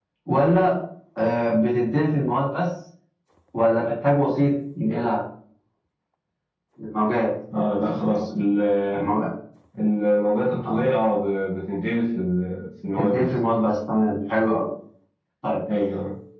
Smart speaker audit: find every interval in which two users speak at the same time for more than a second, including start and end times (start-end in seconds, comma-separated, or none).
none